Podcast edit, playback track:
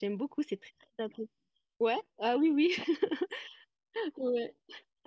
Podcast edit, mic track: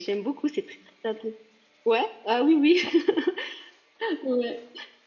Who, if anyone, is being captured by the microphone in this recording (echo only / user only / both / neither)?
echo only